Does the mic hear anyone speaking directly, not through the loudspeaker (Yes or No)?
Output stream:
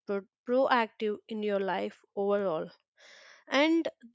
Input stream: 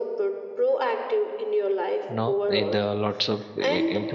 Yes